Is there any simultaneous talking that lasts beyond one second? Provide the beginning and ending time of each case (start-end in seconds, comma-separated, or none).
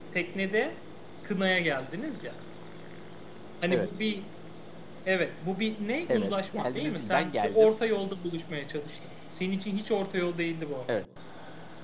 6.1-7.7